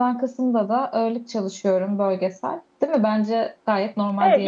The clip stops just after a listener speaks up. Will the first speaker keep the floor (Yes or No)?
No